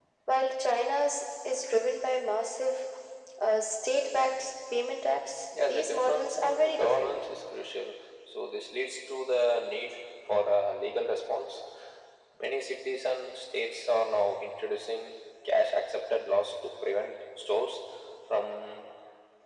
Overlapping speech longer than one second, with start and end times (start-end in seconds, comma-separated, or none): 5.7-7.2